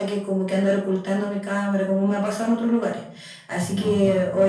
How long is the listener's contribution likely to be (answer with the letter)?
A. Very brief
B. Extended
A